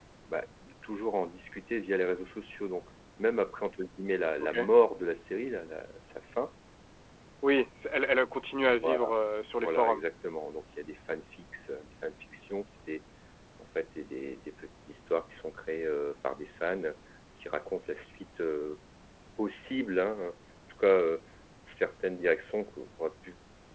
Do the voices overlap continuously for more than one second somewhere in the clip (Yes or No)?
No